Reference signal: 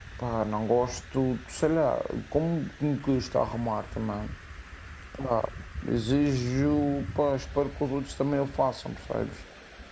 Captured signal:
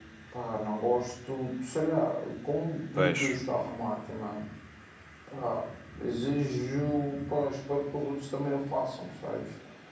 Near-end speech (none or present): present